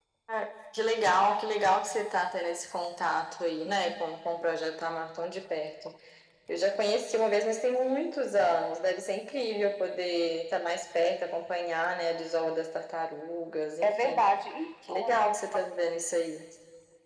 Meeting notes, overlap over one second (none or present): none